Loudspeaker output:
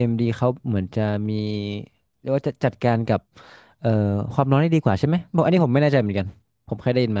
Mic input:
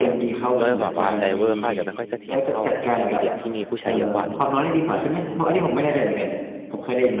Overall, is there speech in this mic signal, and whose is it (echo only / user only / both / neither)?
both